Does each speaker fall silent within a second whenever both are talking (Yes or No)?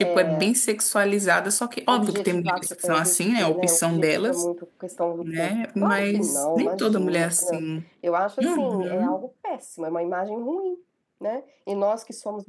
No